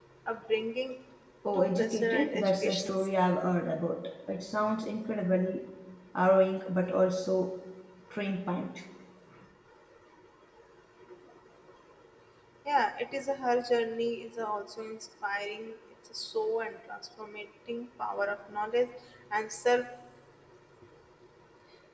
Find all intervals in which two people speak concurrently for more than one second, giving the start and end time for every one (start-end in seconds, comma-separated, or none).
1.6-3.0